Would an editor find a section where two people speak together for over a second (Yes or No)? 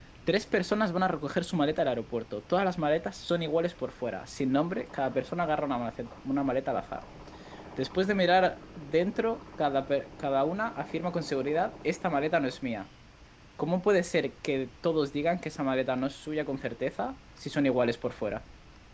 No